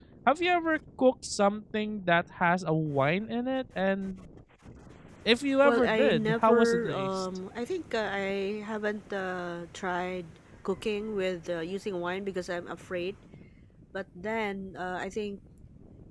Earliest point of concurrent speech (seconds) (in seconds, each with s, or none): 5.6 s